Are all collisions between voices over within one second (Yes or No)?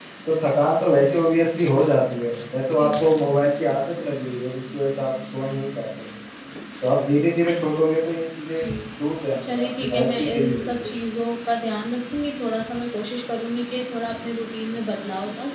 No